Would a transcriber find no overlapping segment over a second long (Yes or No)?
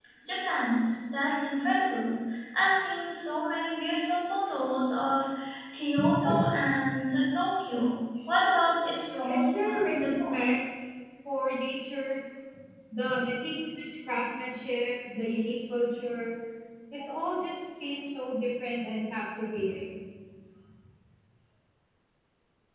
No